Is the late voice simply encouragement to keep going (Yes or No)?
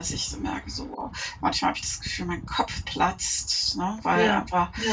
Yes